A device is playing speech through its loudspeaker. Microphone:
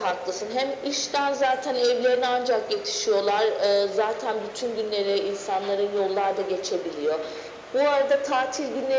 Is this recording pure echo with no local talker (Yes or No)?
Yes